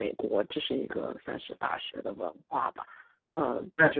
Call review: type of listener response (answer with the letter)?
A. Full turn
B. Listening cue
A